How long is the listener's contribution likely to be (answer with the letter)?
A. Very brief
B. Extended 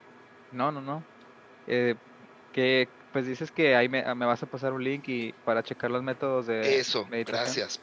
B